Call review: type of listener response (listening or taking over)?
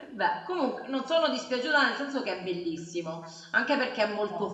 listening